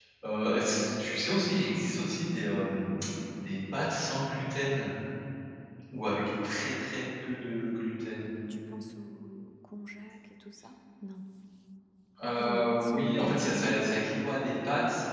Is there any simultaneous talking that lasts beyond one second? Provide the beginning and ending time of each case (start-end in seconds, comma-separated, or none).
12.4-13.8